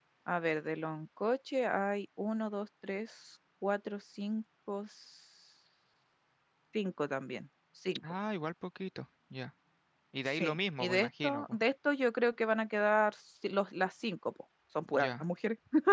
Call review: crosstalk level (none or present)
present